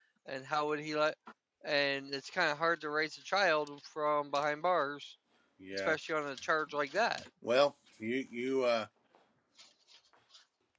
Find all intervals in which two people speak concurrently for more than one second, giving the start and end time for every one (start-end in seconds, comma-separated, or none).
none